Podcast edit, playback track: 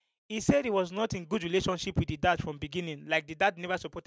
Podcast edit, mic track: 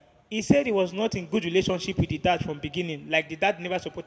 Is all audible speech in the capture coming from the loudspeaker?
Yes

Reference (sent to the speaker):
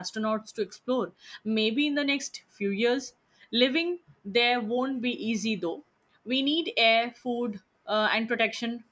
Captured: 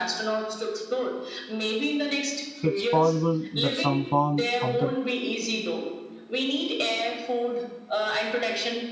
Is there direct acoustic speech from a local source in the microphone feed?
Yes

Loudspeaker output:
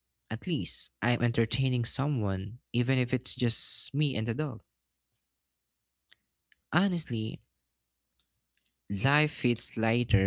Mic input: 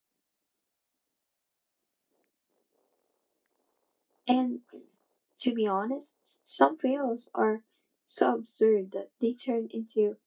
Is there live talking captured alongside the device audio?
Yes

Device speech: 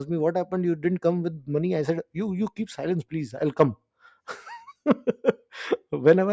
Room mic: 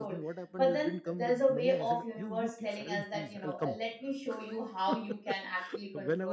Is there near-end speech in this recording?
Yes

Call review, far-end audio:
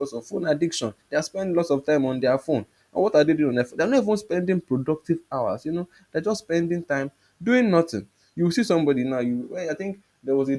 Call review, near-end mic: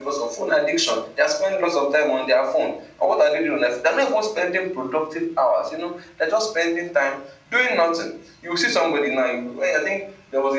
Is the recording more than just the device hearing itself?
No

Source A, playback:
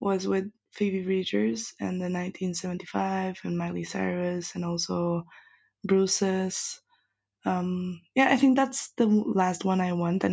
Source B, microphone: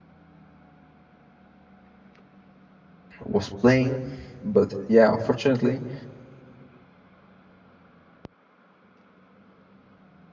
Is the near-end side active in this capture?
Yes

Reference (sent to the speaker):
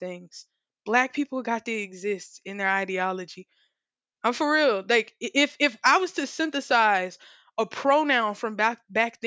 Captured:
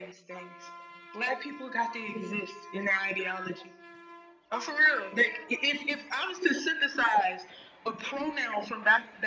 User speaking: No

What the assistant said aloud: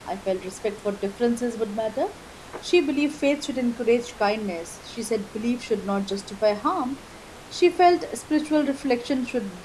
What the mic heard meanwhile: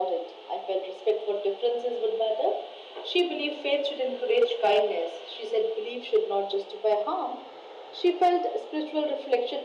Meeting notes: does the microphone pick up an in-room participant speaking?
No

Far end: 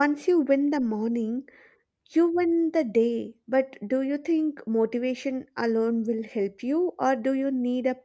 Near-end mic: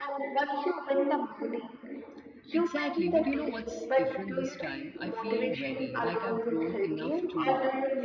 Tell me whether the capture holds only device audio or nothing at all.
No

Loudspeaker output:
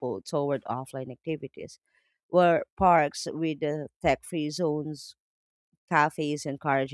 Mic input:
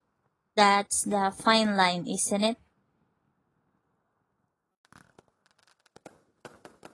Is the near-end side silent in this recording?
No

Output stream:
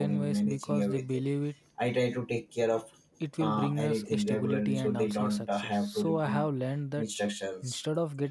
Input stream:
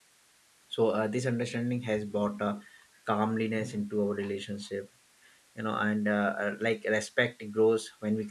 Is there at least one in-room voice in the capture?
Yes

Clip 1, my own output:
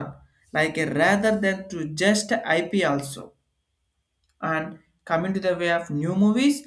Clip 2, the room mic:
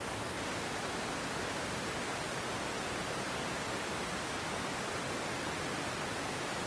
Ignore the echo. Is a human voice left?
No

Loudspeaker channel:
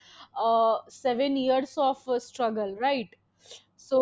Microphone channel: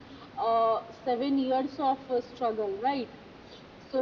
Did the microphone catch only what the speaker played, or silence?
Yes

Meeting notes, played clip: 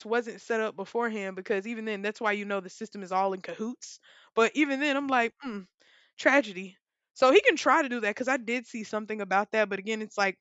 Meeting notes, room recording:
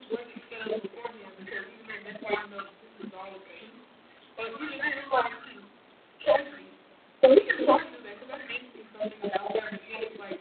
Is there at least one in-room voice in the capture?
No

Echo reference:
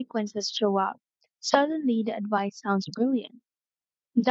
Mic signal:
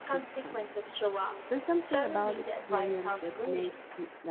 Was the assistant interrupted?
Yes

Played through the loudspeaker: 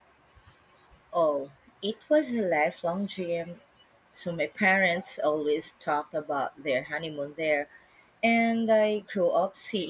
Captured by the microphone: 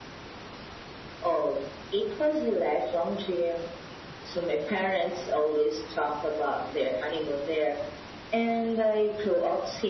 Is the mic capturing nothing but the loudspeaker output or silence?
Yes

